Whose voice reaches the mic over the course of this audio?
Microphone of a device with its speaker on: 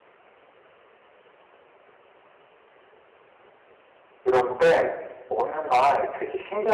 user only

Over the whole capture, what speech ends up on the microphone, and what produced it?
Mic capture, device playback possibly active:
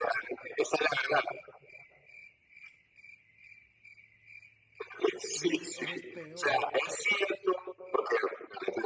both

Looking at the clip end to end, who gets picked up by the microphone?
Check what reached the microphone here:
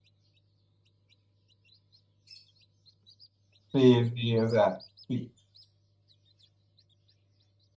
user only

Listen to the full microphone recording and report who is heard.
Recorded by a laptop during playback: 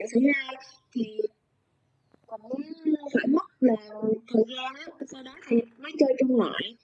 echo only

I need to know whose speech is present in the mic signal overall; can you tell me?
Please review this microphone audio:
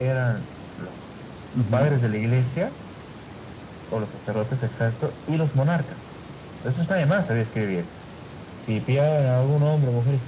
both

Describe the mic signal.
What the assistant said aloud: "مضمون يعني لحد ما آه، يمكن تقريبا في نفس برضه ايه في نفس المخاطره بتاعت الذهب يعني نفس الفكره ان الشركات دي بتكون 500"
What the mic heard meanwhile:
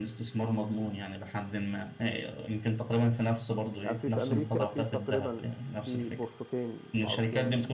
both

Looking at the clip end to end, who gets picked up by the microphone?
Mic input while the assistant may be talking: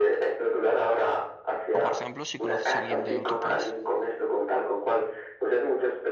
both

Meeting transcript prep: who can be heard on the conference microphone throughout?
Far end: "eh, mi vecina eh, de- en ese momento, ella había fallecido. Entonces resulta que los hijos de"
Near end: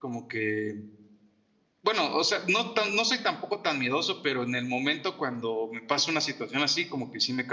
user only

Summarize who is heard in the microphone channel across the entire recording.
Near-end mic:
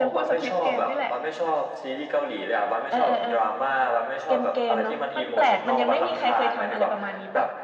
both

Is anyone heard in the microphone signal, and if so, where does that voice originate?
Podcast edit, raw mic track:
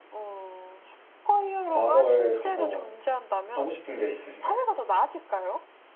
both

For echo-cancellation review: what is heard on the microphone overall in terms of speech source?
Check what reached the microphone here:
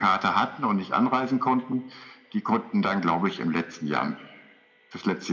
echo only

